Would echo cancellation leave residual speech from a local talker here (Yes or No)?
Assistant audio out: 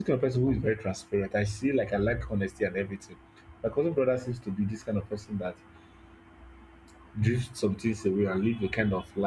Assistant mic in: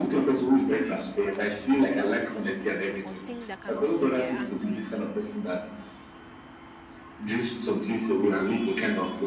Yes